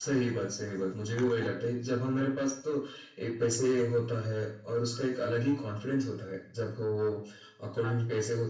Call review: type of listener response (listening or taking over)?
listening